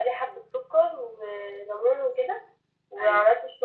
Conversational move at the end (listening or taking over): listening